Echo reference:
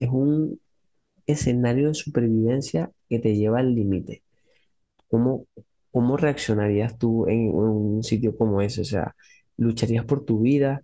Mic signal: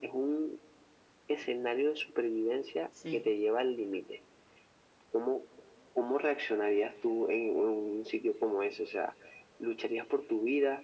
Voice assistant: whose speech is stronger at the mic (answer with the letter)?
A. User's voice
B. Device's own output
B